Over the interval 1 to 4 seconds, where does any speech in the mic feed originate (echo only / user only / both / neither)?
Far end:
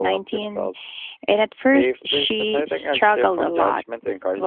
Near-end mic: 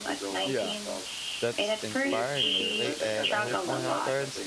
both